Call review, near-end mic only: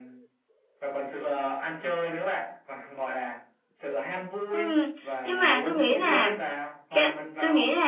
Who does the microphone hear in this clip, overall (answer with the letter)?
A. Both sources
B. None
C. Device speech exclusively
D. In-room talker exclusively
A